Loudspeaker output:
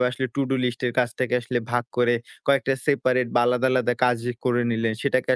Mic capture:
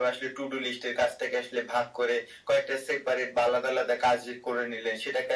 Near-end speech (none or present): none